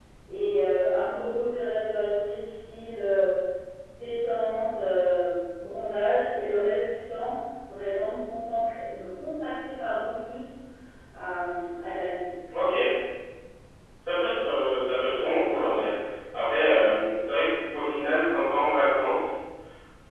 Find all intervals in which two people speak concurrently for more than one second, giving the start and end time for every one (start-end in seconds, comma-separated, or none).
none